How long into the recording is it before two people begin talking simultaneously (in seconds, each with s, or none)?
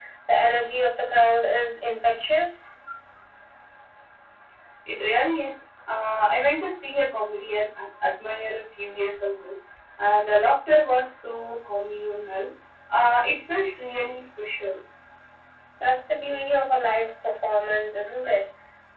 none